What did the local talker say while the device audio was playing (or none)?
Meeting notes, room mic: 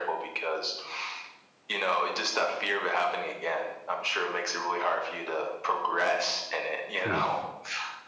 t oof.